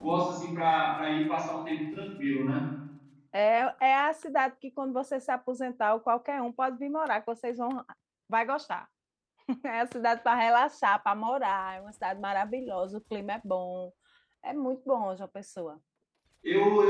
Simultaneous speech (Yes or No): No